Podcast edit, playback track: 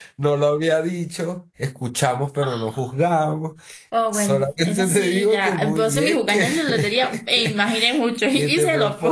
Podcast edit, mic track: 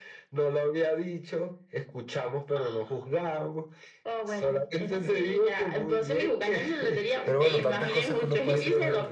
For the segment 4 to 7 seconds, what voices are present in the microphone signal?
echo only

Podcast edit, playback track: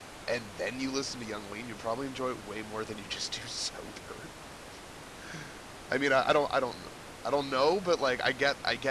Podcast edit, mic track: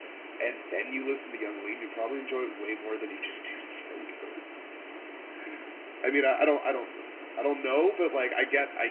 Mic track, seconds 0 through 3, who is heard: echo only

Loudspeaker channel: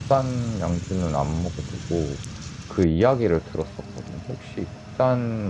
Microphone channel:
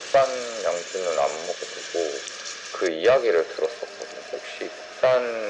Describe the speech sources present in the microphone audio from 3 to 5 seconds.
echo only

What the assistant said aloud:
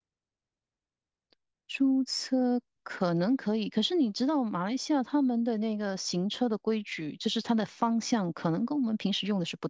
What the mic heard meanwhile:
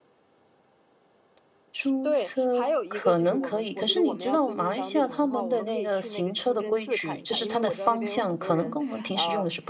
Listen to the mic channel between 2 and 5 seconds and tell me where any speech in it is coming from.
both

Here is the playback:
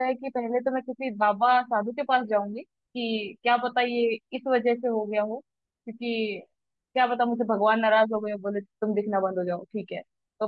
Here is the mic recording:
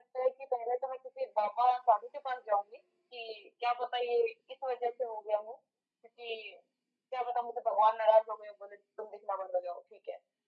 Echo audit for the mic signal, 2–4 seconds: echo only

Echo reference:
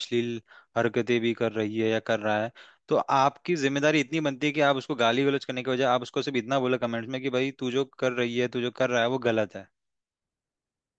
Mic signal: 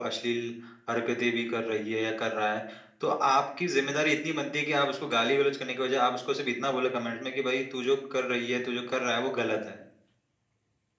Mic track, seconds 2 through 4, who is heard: echo only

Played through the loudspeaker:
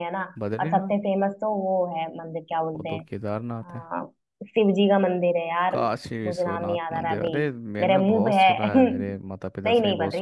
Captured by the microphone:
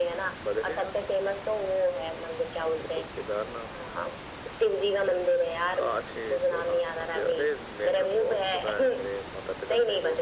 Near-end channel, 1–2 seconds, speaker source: echo only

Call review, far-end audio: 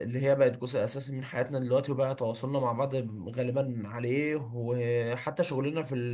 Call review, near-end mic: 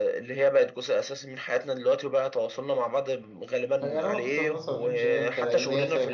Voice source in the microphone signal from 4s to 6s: both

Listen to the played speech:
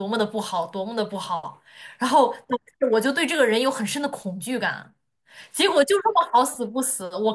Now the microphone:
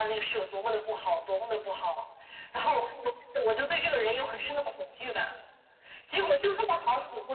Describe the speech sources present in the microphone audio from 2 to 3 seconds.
echo only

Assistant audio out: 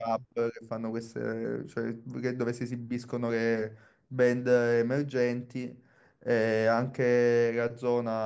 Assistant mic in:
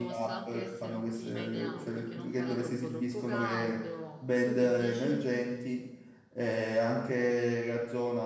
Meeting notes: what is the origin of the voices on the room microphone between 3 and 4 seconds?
both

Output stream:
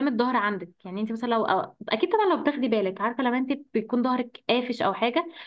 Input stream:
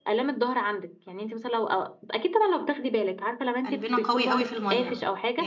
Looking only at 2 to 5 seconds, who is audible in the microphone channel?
both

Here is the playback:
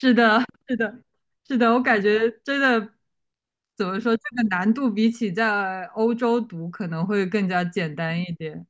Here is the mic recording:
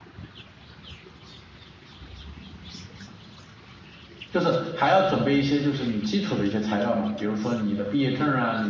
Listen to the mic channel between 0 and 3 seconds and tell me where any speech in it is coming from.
neither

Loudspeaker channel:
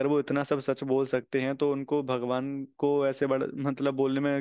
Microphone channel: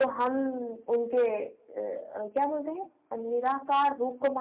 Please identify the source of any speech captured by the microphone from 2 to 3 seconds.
user only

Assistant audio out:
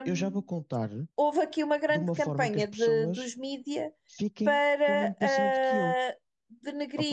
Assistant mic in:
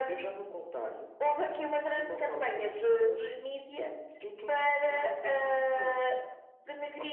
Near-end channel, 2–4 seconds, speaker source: echo only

